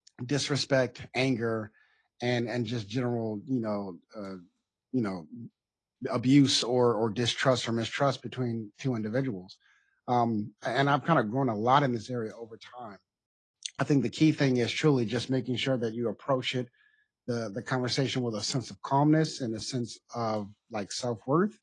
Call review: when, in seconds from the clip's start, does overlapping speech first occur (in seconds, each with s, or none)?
none